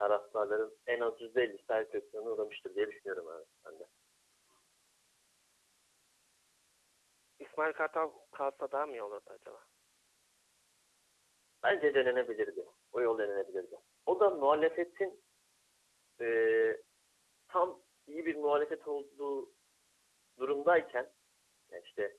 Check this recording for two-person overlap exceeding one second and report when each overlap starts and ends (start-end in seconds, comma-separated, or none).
none